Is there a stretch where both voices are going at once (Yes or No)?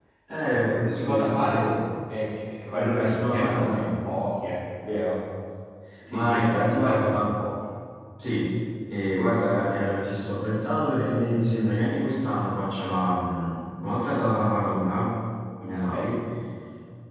Yes